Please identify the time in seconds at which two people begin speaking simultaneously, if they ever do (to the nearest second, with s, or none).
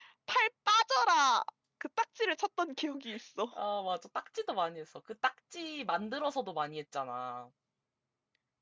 none